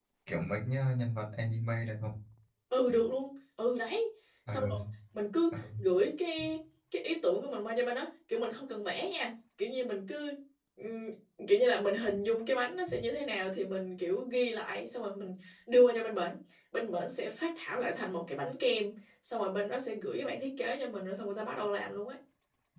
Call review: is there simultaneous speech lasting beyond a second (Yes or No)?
No